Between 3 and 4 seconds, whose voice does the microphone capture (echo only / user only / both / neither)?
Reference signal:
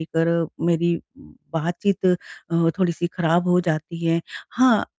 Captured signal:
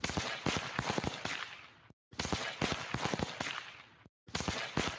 neither